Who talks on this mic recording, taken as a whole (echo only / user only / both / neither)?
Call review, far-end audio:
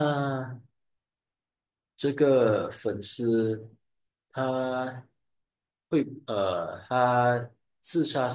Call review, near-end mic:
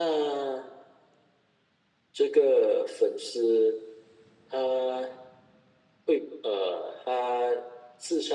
echo only